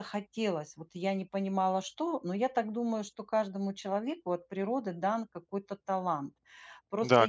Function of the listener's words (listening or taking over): taking over